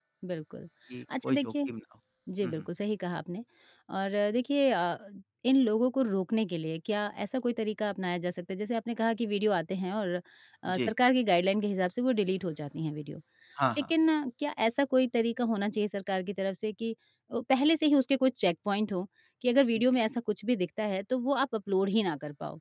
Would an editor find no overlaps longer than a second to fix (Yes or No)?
Yes